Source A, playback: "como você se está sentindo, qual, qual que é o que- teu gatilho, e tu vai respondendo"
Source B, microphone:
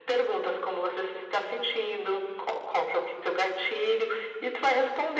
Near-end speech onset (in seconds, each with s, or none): none